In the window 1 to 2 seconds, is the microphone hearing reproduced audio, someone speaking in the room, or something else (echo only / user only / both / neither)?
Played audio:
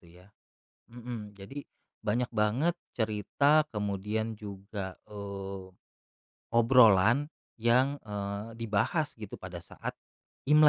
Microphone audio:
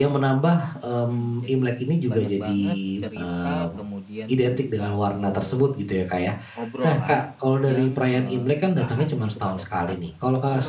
both